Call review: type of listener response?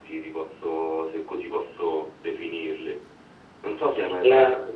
listening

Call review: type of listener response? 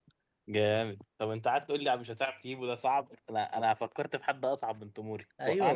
taking over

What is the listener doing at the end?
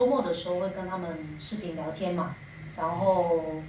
listening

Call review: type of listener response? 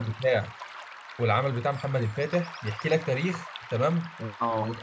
listening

